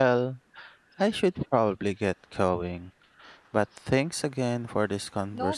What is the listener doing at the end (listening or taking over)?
taking over